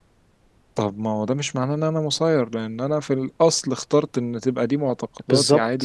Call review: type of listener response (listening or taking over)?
listening